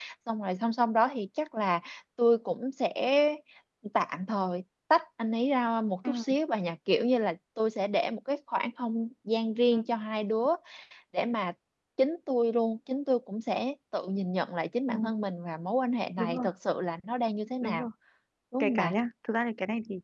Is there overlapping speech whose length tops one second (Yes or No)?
No